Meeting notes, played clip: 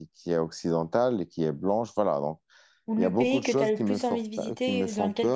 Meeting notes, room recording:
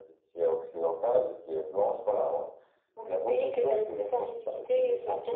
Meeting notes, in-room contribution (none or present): none